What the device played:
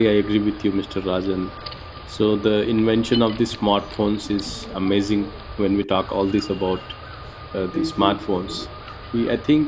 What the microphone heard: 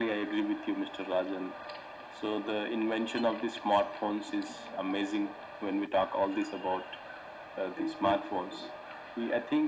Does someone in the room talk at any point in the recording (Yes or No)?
No